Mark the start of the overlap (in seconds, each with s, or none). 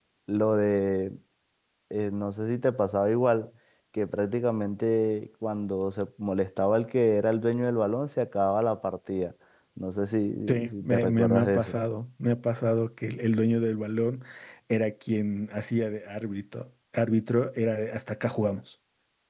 10.5 s